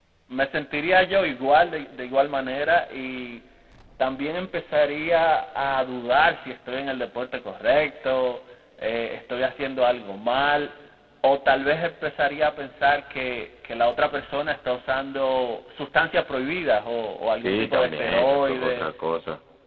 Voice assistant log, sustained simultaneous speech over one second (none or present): present